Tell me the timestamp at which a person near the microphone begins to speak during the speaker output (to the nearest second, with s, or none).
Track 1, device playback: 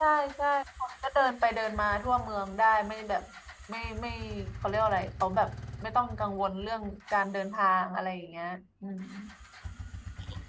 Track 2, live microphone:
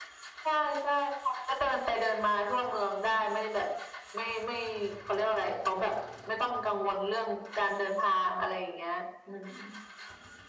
none